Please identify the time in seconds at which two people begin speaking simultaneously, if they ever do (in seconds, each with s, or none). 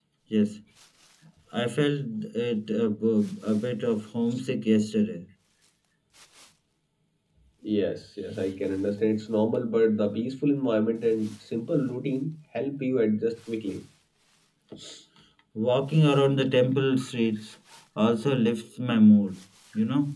none